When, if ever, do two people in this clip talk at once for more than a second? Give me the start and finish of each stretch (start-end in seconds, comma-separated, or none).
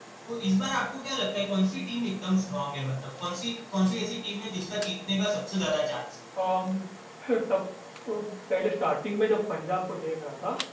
none